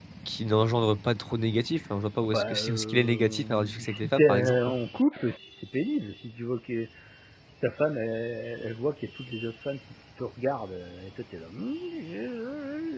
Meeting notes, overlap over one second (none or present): present